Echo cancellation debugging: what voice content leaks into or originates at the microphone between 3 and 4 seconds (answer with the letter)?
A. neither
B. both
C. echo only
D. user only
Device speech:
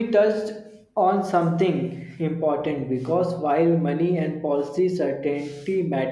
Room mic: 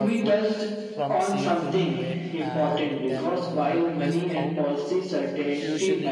B